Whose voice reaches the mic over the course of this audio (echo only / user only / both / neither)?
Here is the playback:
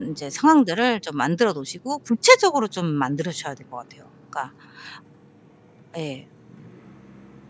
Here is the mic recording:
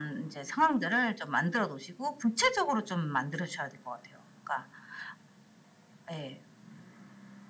echo only